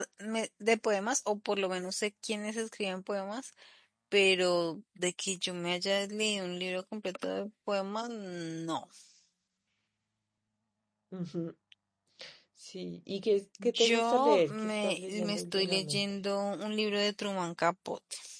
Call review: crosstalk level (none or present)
present